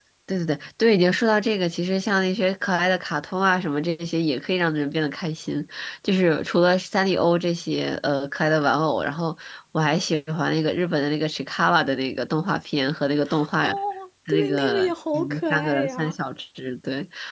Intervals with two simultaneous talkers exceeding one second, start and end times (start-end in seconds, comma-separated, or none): 14.3-16.1